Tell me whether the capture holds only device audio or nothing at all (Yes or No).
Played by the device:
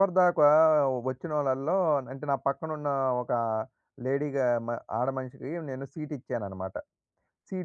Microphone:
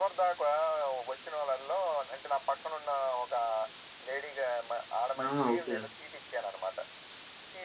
No